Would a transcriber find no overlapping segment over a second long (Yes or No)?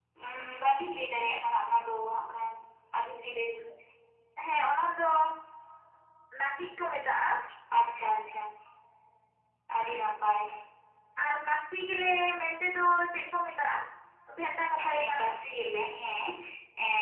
Yes